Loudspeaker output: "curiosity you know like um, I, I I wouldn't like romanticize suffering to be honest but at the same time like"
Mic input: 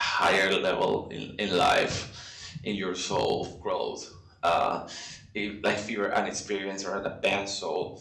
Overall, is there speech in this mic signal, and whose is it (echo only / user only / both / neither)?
user only